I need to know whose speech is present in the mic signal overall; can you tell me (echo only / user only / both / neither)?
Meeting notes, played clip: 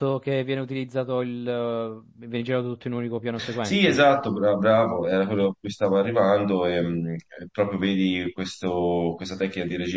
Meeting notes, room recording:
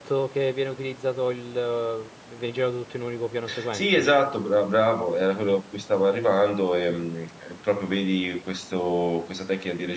echo only